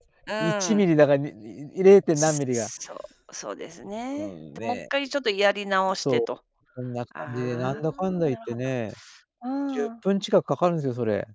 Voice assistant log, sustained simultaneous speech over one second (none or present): present